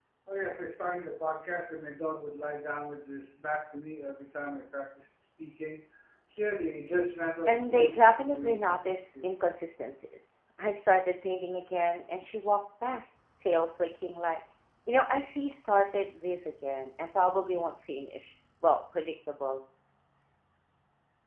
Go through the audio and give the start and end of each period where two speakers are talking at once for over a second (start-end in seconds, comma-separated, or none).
7.5-9.3